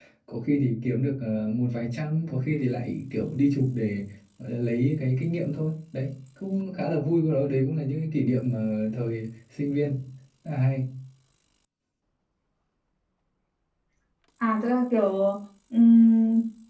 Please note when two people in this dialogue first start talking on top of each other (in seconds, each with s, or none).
none